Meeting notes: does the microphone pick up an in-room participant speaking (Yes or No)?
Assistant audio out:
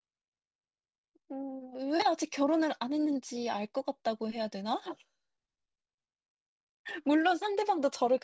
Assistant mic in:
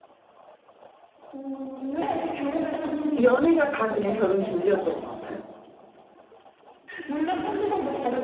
Yes